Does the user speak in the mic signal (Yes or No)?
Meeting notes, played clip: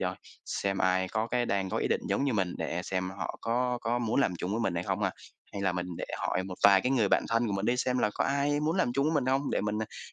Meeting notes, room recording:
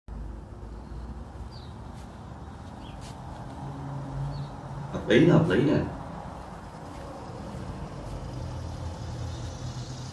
Yes